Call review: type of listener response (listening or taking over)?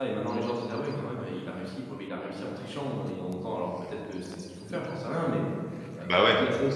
listening